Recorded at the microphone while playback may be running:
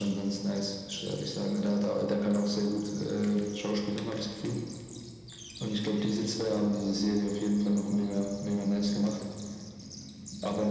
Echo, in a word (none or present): present